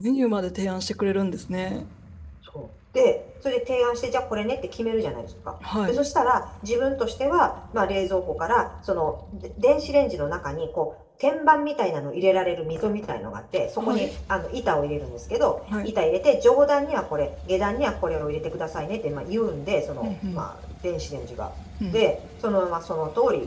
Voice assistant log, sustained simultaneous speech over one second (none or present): none